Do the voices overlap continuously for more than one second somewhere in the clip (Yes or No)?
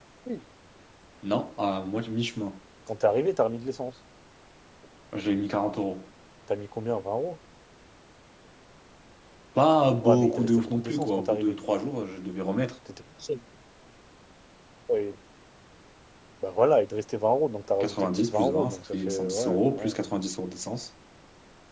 Yes